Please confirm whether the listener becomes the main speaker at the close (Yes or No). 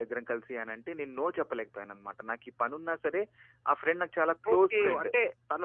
Yes